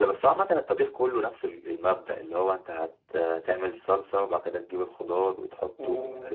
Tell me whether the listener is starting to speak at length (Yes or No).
Yes